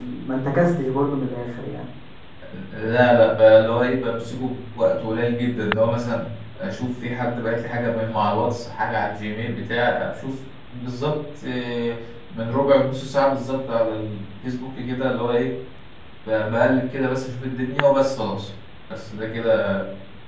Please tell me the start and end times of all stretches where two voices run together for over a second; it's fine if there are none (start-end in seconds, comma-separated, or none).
none